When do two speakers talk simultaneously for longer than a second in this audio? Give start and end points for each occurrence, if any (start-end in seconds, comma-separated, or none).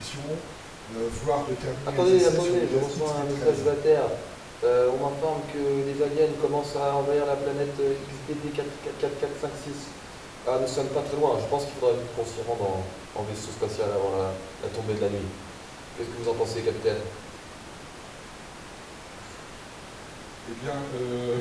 1.9-3.7